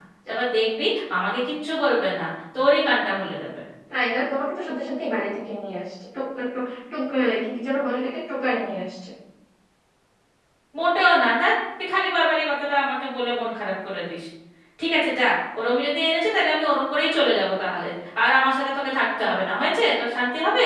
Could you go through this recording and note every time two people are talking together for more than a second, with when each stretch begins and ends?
none

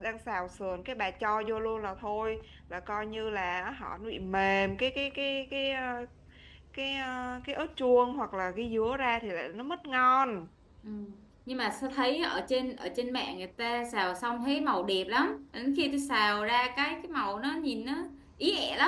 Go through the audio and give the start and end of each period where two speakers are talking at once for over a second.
none

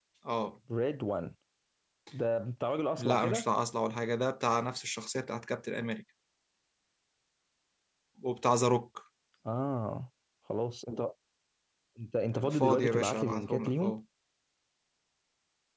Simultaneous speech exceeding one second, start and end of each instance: 12.3-13.9

